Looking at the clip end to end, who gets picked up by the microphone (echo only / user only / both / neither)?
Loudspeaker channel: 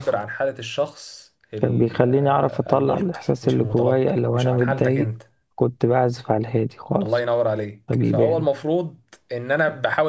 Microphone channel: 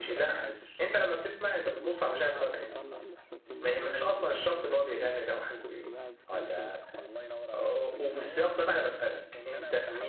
both